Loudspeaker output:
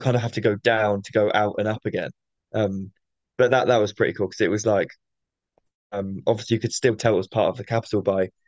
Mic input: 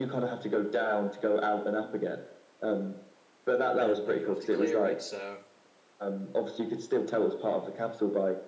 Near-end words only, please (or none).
and then you have to clear it. So